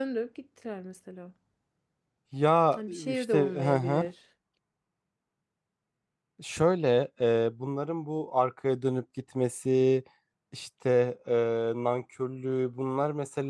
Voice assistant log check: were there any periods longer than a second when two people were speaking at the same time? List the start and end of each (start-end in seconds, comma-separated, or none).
2.7-4.0